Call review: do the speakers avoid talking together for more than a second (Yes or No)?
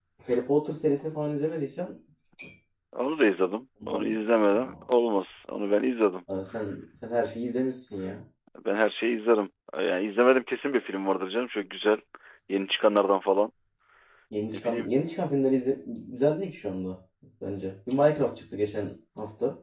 Yes